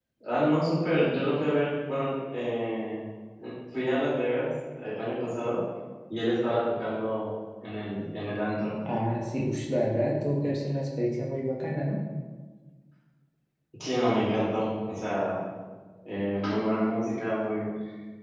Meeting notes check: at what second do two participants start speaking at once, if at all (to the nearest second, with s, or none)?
none